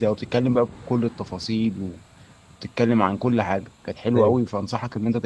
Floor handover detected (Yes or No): No